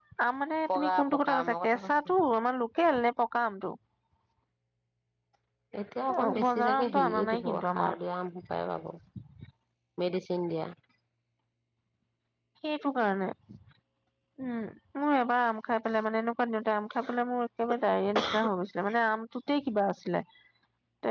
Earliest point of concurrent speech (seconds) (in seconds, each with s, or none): 0.7 s